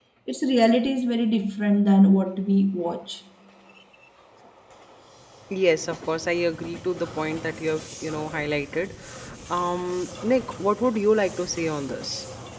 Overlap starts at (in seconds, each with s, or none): none